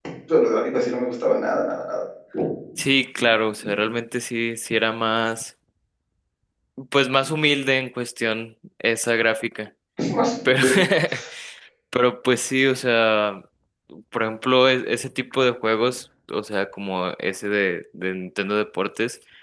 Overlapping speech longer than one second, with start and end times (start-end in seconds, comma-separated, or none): none